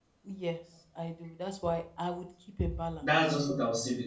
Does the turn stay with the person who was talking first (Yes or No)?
No